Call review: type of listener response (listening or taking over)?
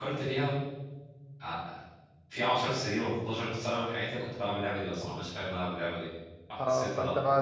taking over